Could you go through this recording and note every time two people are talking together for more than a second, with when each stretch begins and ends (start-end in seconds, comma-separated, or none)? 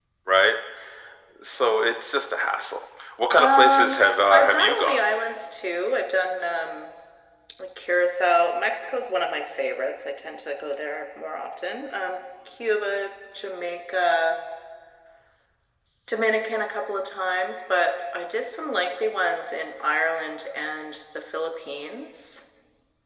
3.4-5.0